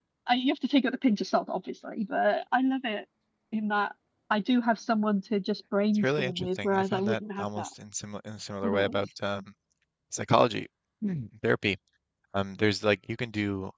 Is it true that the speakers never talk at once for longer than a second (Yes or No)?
No